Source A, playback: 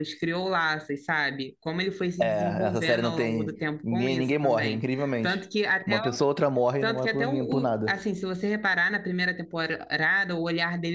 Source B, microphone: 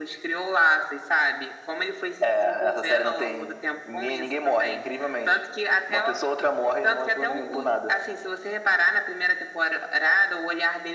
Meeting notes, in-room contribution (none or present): none